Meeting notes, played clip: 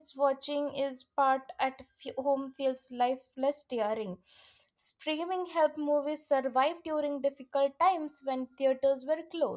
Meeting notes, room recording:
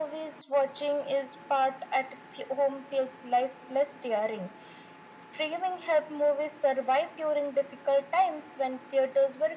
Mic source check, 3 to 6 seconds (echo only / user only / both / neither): echo only